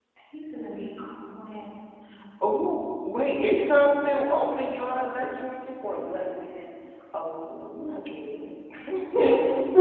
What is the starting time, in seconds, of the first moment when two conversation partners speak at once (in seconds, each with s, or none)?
none